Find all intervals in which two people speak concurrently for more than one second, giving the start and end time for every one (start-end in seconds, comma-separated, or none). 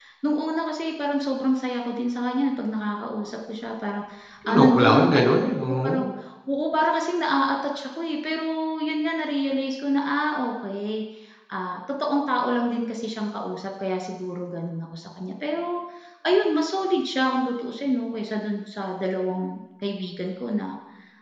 4.5-6.0